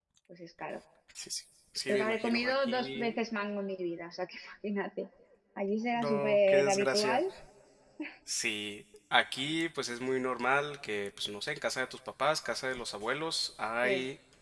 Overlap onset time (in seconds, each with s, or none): 1.9 s